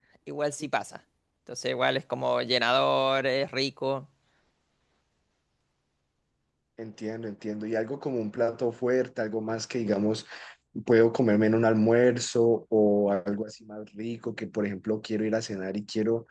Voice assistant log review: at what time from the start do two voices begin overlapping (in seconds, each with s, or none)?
none